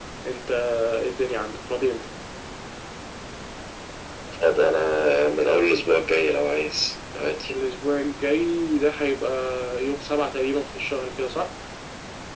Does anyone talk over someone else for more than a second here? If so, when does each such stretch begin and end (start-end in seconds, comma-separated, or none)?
none